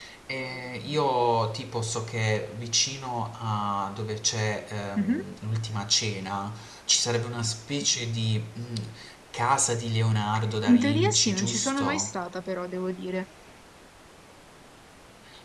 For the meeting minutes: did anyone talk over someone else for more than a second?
Yes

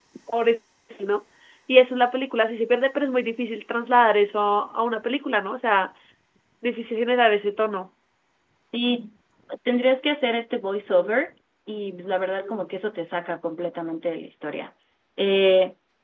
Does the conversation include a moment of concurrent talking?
No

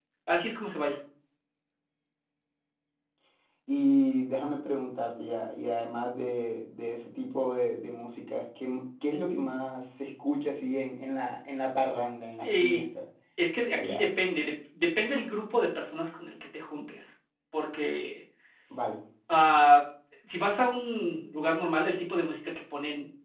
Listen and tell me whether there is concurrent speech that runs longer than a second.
No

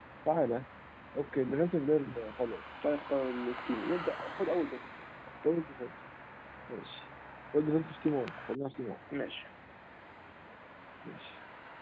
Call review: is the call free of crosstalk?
Yes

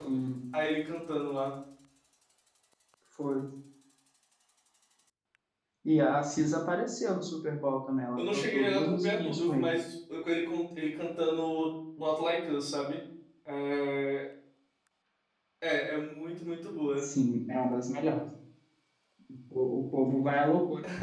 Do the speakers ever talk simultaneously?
Yes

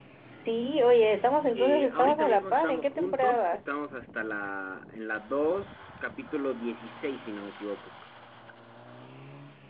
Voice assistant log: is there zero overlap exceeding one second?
No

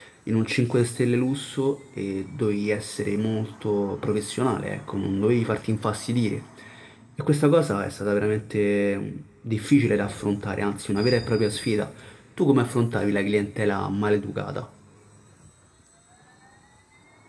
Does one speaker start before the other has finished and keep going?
No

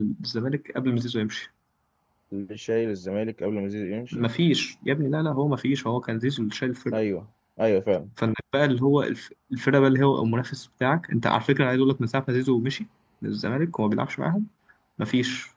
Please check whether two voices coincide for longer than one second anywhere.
No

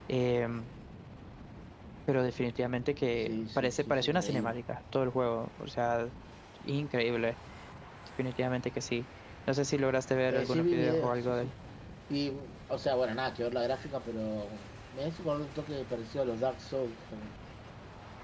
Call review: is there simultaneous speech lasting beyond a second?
Yes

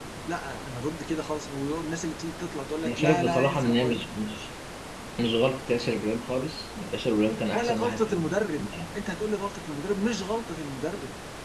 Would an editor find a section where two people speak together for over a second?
Yes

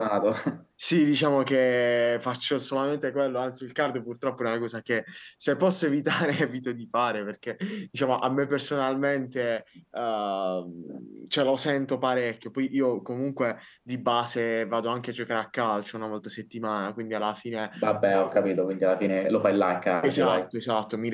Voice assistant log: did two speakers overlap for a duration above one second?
No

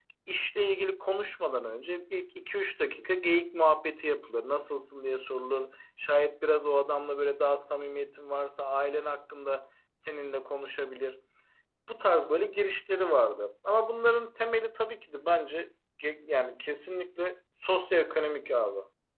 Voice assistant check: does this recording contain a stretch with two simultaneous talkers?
No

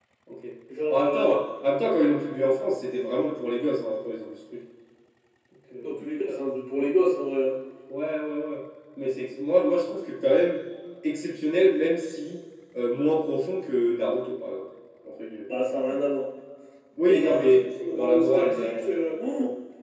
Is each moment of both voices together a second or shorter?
No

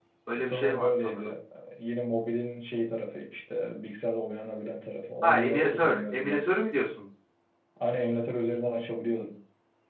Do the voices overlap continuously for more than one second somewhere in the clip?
Yes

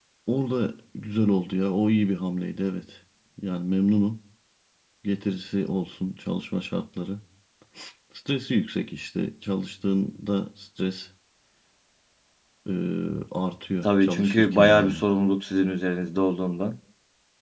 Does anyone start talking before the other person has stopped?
Yes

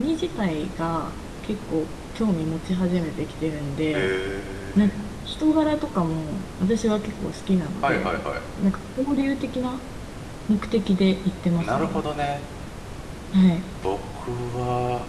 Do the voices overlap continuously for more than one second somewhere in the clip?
No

